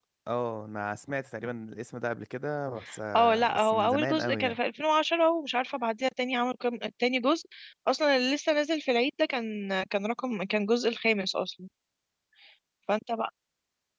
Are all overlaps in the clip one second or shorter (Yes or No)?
No